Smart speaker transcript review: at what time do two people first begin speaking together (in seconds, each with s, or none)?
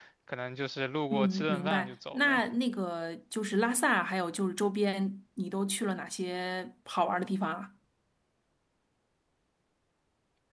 1.1 s